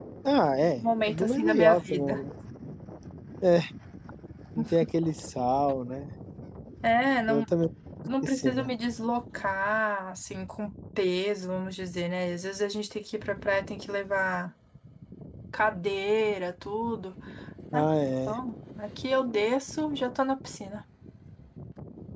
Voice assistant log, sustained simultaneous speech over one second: present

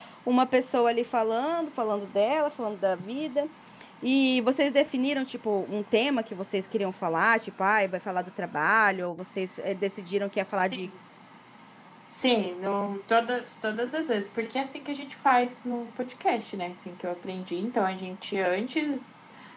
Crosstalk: none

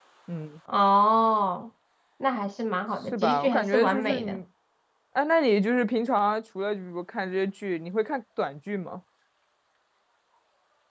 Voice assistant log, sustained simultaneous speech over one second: present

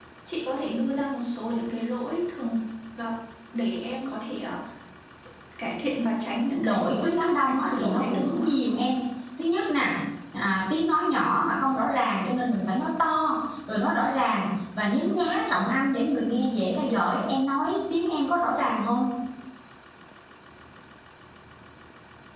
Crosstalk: present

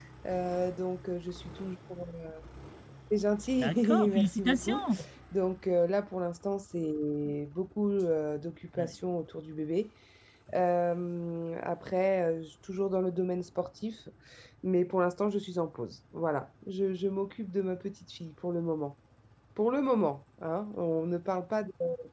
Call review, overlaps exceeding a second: present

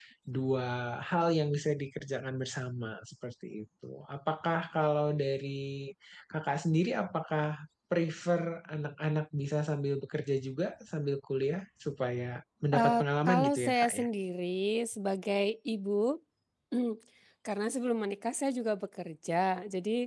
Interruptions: present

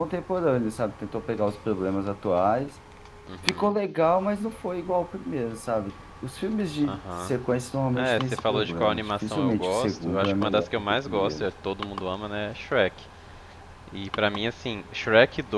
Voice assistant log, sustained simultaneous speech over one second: present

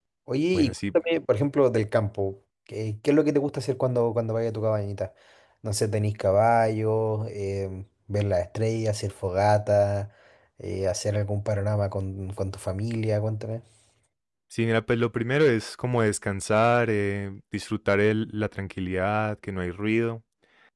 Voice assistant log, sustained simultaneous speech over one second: none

